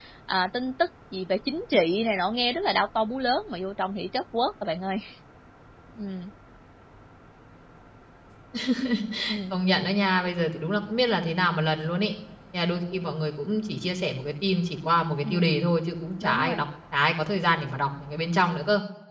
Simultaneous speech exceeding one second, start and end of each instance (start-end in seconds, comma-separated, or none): none